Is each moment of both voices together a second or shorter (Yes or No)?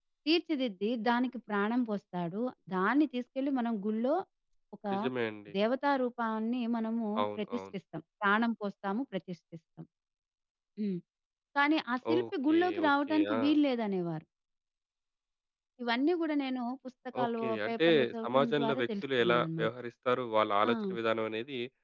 No